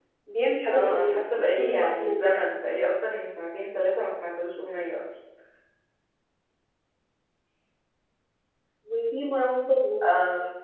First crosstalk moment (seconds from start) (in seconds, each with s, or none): 0.7 s